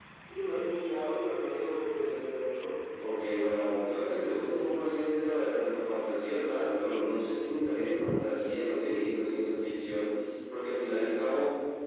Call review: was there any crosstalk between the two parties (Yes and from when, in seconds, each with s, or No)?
No